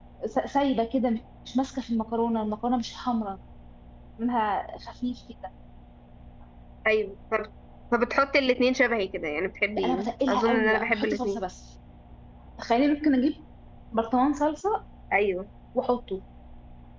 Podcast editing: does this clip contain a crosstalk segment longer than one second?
Yes, from 9.7 s

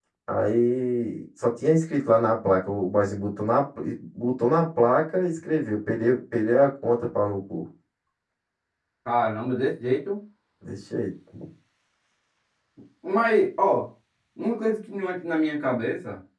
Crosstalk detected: No

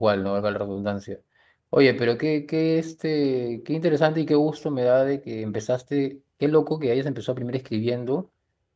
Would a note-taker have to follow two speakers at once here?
No

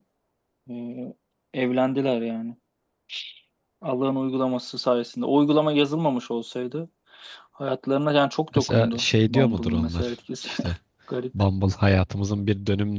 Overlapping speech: Yes, from 8.5 s

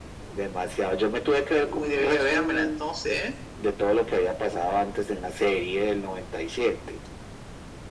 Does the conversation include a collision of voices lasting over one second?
Yes, from 1.6 s

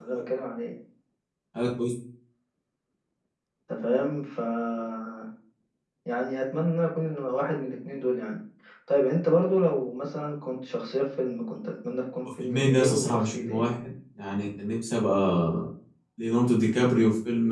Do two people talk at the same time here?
Yes, from 12.4 s

